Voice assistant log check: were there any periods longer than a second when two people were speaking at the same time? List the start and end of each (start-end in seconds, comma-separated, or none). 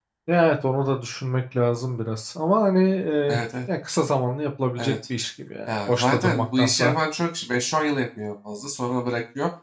5.7-7.0